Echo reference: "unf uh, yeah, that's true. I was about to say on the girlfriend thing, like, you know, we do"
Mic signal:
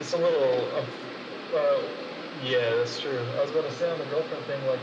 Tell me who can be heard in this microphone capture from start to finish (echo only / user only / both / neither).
echo only